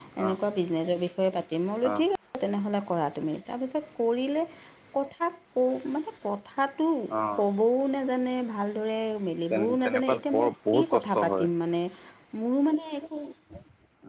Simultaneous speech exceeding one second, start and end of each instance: 9.5-11.5

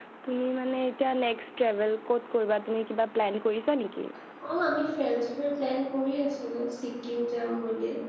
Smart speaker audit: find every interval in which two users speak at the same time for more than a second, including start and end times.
none

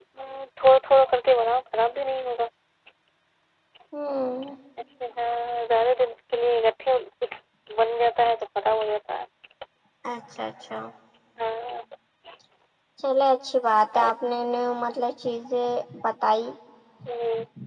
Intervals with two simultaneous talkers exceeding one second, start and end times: none

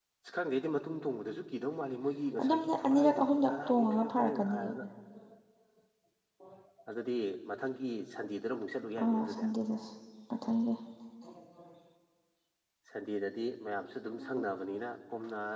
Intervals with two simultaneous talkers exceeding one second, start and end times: 2.4-4.7

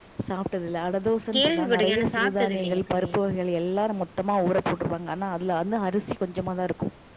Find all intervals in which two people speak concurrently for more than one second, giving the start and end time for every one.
1.4-3.1

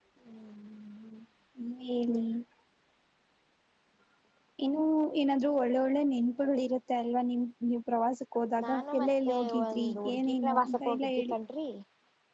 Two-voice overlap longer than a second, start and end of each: 8.6-11.3

